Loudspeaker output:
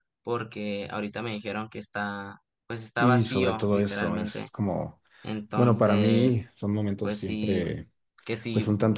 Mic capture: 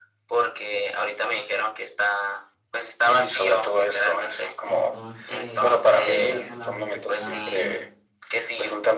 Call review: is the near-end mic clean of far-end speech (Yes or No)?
No